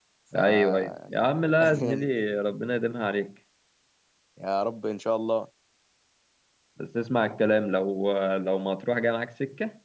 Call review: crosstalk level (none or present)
present